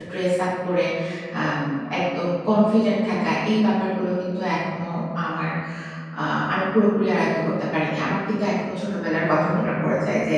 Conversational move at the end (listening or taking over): listening